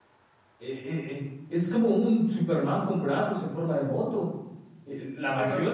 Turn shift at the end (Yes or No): No